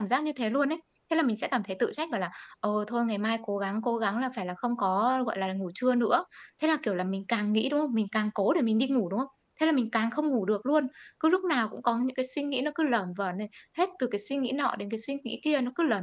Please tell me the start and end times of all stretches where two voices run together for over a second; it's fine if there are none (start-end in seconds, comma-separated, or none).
none